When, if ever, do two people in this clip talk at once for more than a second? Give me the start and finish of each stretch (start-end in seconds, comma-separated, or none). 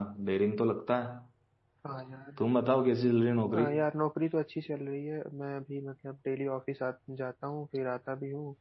none